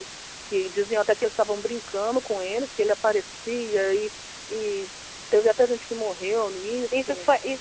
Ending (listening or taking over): taking over